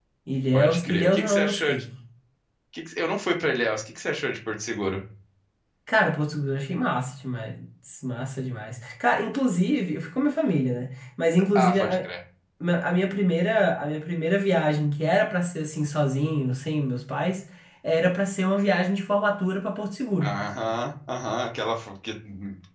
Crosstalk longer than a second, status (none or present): present